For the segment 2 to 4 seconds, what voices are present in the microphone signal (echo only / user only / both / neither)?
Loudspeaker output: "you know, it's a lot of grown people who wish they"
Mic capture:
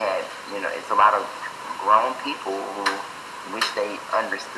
echo only